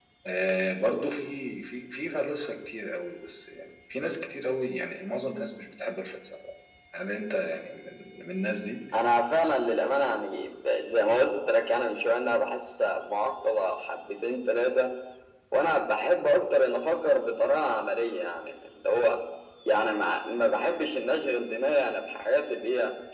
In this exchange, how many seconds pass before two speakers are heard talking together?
none

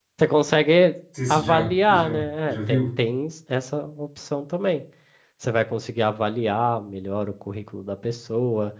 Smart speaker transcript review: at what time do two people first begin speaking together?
1 s

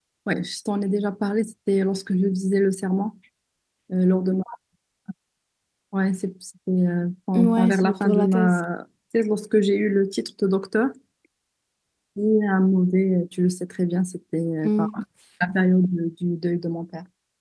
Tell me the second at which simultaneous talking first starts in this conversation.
7 s

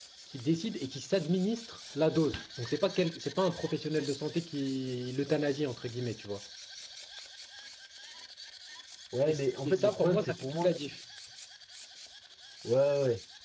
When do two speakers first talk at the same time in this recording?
9 s

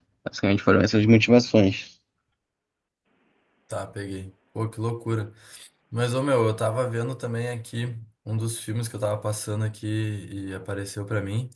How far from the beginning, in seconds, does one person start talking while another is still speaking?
none

